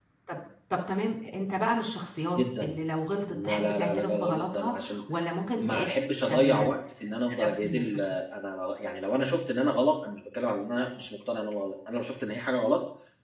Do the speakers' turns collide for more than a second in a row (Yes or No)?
Yes